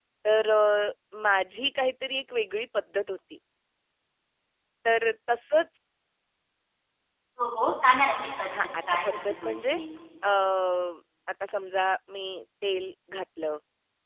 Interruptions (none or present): present